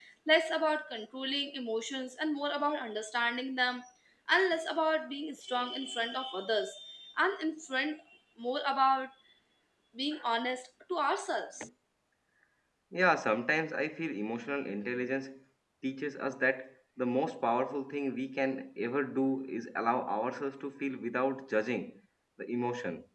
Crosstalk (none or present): none